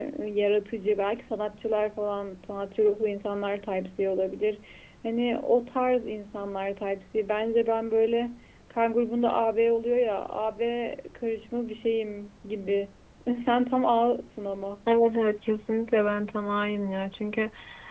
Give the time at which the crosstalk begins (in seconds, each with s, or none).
none